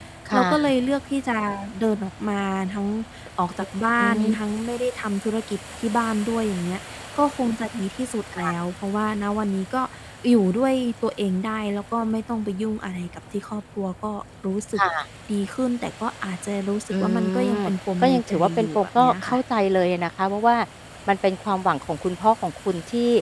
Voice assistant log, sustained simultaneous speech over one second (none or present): present